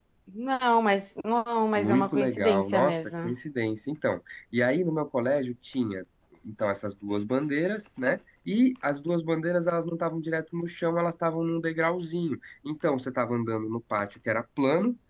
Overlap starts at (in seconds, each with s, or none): 1.8 s